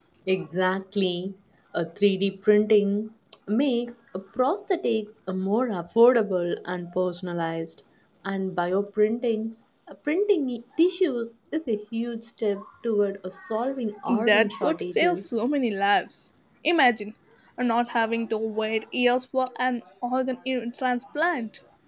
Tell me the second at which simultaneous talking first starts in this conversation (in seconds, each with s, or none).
14.1 s